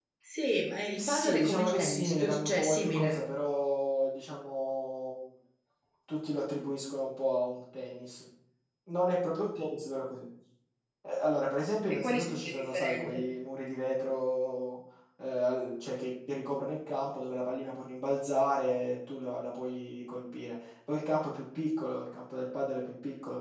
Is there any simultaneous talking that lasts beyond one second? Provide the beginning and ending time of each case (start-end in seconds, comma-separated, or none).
0.9-3.2, 11.9-13.2